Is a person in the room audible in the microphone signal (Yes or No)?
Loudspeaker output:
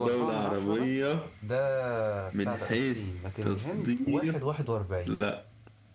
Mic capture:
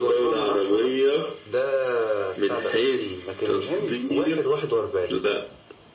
No